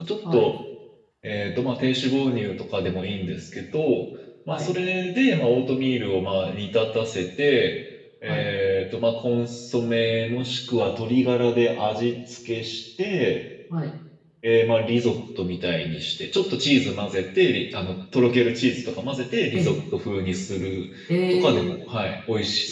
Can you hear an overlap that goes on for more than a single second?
No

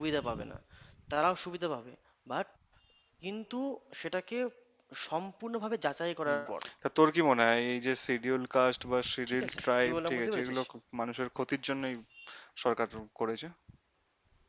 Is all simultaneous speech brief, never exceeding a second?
No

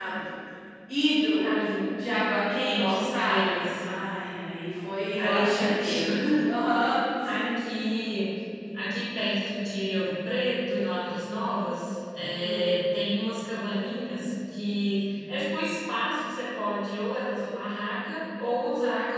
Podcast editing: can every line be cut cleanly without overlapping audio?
No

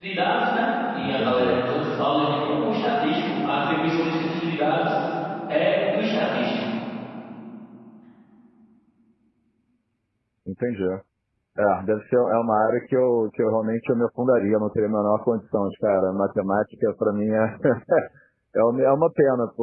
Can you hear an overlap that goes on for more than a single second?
No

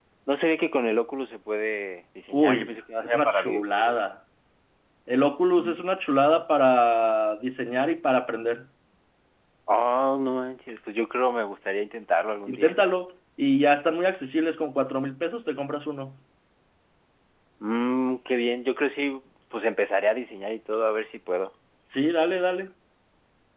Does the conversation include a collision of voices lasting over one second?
Yes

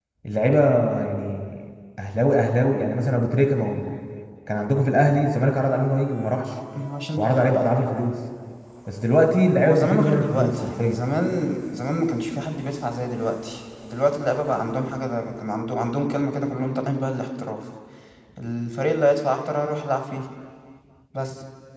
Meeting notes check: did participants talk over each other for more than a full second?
Yes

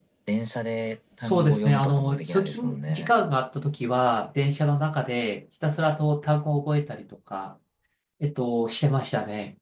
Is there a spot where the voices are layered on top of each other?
Yes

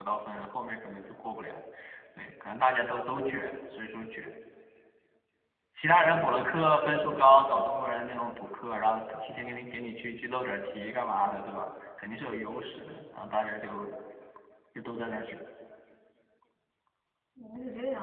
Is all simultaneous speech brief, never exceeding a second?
No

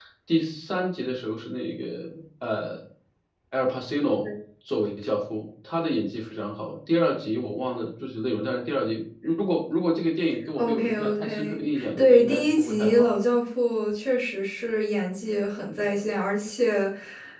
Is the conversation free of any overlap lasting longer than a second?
No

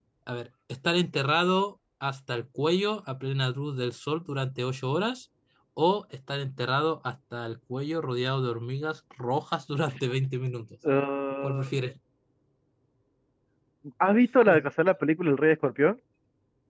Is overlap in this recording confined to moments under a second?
Yes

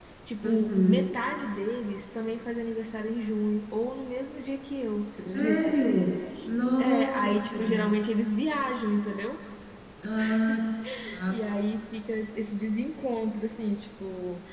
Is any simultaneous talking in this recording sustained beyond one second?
Yes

